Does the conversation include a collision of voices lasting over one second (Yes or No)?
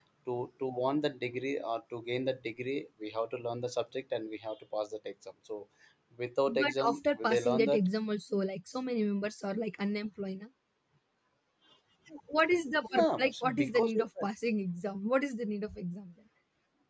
Yes